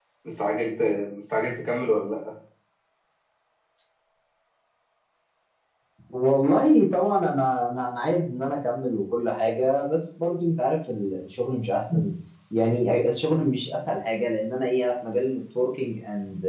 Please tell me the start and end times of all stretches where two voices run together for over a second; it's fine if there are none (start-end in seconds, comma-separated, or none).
none